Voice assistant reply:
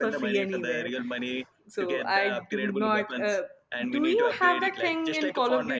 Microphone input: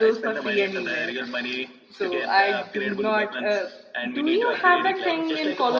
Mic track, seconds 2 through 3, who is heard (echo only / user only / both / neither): echo only